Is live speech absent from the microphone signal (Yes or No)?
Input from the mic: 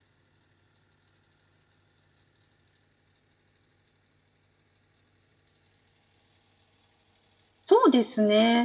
No